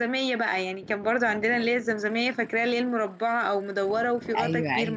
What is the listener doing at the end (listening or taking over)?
taking over